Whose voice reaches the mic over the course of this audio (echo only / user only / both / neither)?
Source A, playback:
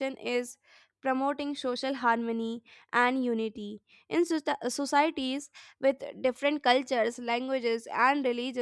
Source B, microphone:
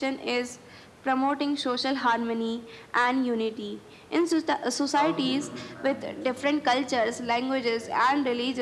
both